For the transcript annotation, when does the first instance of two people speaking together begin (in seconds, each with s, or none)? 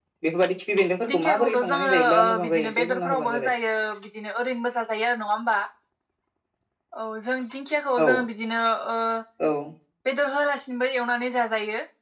1.1 s